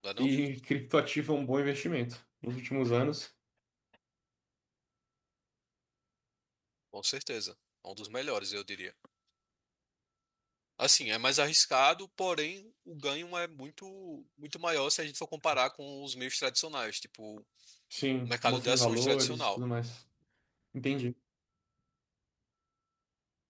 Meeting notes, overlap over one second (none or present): present